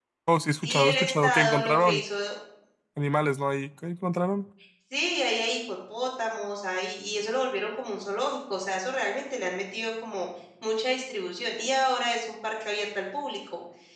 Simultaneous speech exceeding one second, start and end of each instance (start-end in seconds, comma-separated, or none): 0.6-2.0